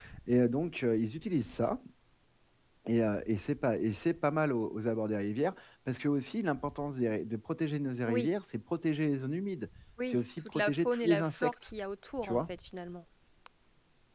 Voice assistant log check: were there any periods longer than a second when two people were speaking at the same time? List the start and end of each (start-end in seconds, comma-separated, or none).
10.1-11.5